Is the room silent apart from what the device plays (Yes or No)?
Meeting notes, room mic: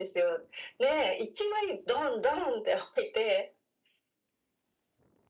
Yes